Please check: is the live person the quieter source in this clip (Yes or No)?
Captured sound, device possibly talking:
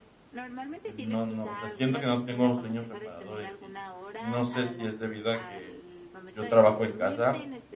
No